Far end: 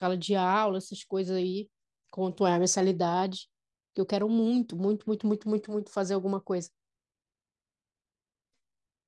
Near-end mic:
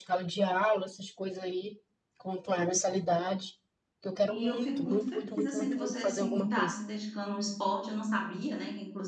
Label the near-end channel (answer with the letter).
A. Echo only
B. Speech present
B